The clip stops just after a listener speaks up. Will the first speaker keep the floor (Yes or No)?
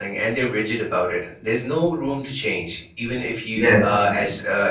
Yes